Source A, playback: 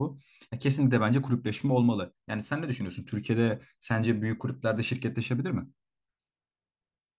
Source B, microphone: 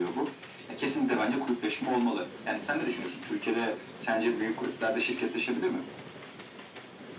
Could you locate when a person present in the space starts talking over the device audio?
none

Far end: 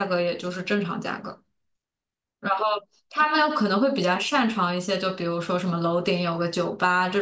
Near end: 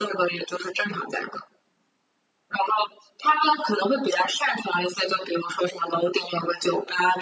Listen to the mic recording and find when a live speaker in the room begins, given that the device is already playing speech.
none

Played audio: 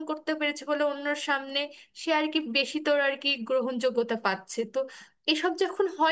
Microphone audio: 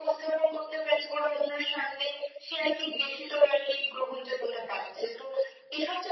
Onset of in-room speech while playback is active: none

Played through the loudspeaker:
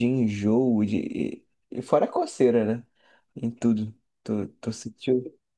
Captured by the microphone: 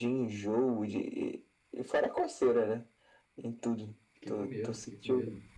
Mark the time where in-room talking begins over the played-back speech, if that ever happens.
4.1 s

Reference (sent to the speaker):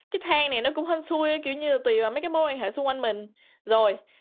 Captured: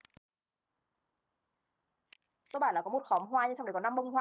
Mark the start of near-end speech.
2.5 s

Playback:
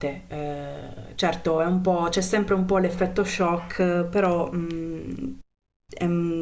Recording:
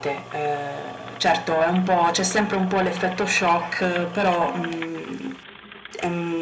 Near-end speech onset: none

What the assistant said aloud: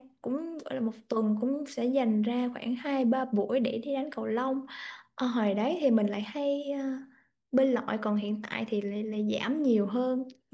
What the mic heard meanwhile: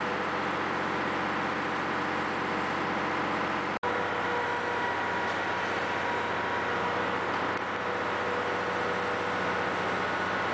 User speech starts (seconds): none

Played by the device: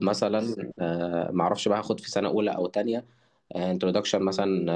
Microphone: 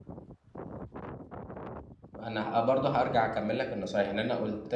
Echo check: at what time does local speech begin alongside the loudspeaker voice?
2.2 s

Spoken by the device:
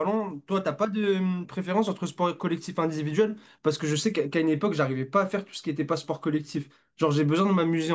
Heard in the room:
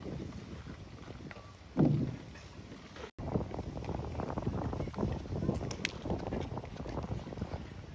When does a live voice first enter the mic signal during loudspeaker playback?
none

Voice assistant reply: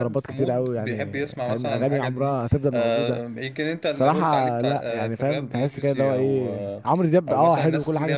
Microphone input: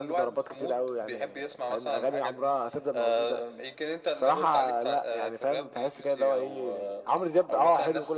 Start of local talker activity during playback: none

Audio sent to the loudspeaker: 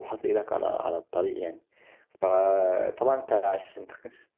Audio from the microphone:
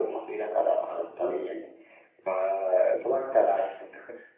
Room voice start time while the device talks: none

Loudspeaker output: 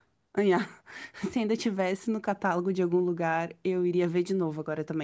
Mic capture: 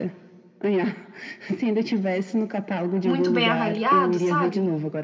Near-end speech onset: 3.0 s

